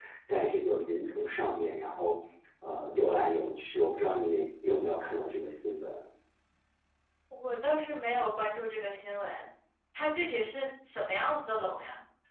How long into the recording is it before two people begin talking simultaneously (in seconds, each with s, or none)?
none